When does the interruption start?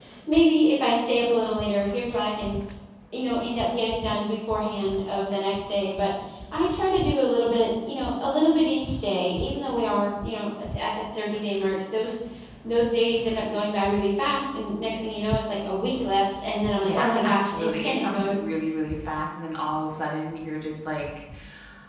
17 s

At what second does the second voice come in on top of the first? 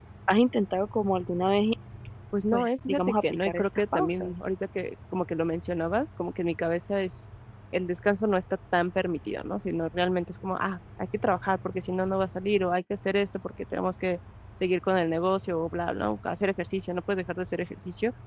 3 s

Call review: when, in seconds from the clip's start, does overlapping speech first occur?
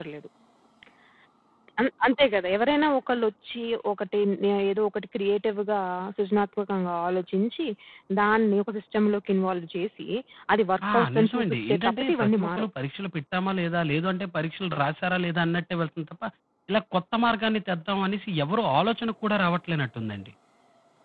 11 s

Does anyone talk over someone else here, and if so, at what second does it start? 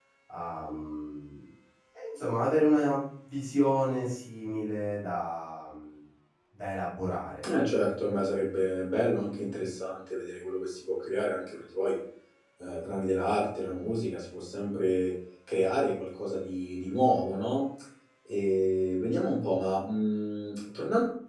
none

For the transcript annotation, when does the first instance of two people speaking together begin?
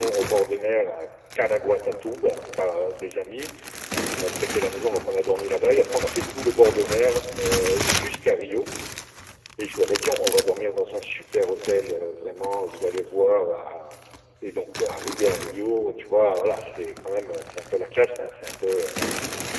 none

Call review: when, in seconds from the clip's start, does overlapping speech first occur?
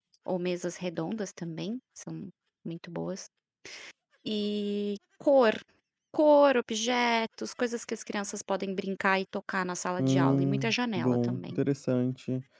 10 s

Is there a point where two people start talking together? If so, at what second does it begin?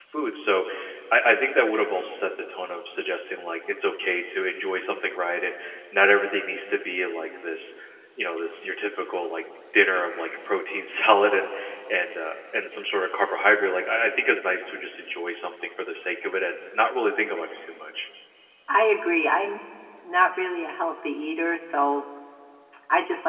none

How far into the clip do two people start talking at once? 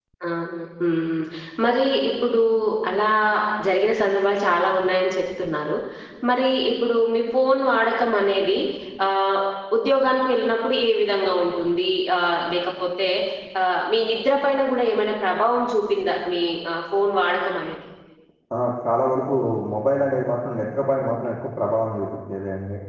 none

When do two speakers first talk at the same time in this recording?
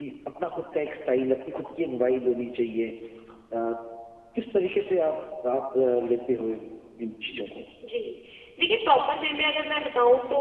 none

